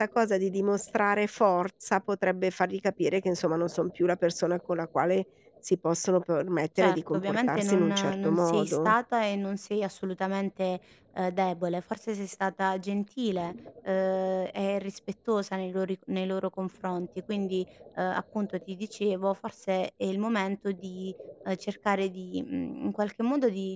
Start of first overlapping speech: 6.8 s

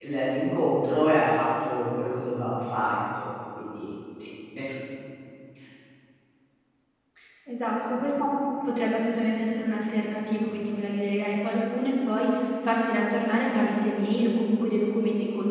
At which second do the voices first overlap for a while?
none

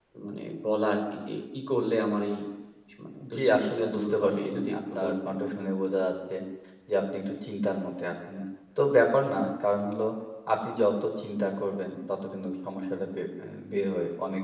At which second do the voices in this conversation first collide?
3.3 s

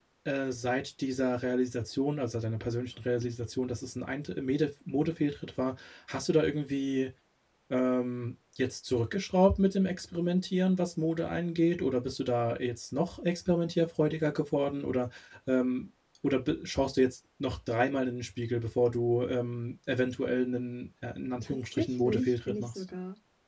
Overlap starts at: 21.4 s

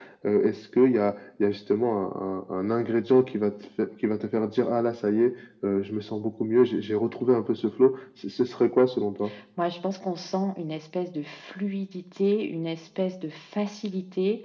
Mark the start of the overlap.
none

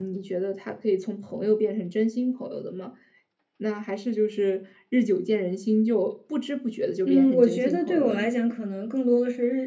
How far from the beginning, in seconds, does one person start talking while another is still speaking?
7.0 s

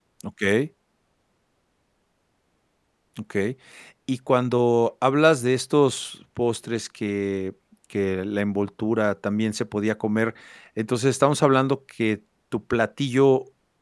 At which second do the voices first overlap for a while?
none

